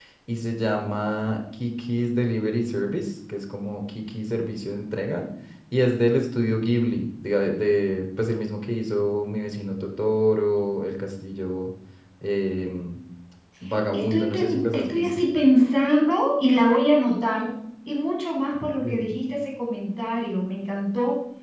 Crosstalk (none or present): present